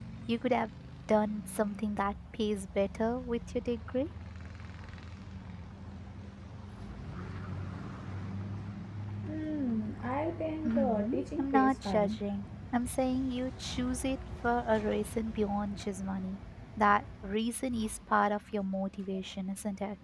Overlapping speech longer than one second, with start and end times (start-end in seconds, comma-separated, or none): 10.6-12.2